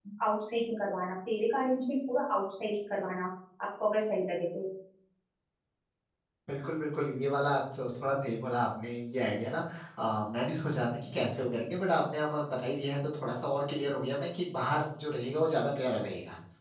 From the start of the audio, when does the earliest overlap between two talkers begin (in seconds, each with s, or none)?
none